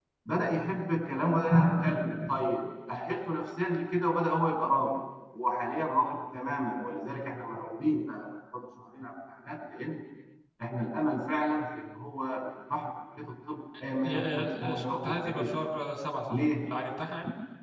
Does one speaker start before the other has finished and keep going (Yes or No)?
Yes